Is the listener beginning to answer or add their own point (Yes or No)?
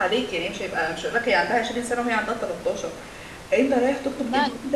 No